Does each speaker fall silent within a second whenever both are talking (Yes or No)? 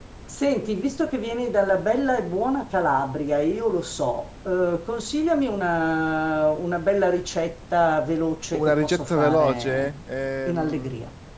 No